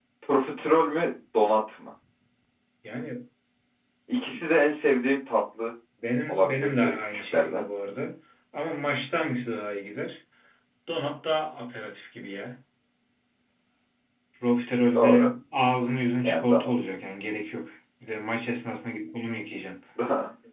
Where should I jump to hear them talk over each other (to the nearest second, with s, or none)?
6 s